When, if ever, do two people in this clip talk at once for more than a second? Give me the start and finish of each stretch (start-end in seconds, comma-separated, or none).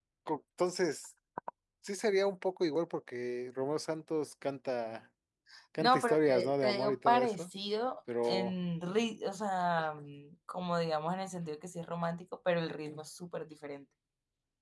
5.8-7.5